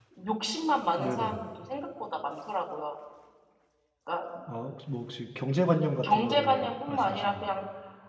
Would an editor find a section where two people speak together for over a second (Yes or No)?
Yes